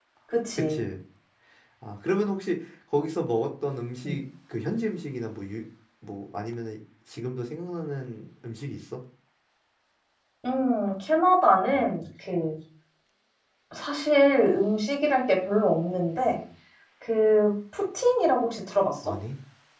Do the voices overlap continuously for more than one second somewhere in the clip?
No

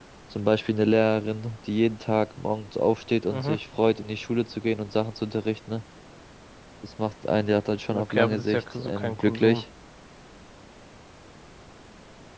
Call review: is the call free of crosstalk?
No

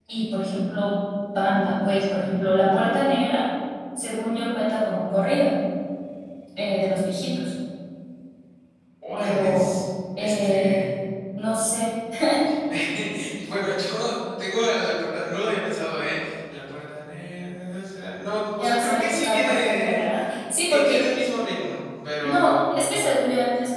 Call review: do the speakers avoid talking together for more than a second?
No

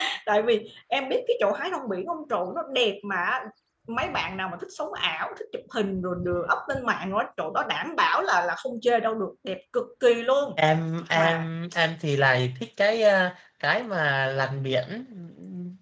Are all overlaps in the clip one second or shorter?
Yes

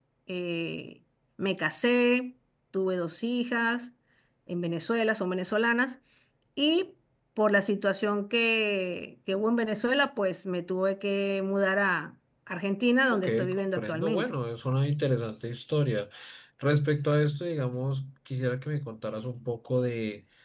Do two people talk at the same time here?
Yes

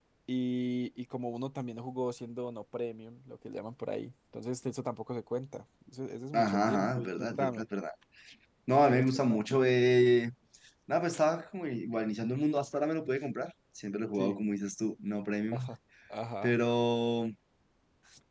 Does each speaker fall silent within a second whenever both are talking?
No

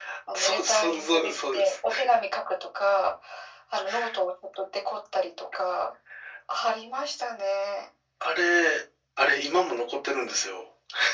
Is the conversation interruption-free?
No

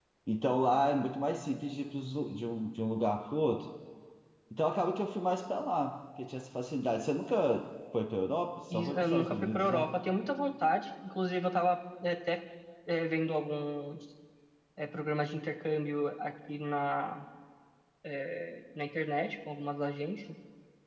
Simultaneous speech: Yes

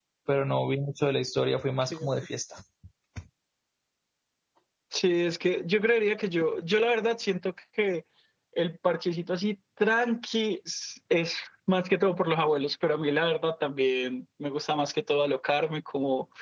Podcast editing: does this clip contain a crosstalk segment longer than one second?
No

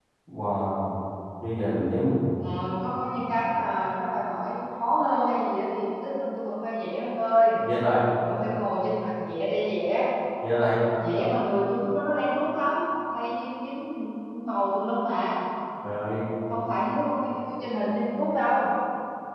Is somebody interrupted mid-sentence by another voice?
No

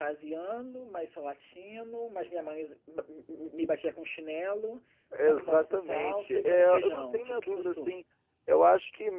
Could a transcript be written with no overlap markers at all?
No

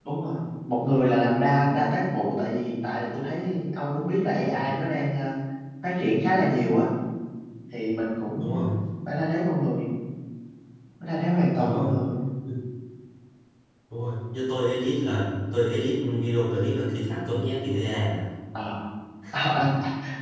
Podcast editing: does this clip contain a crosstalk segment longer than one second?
No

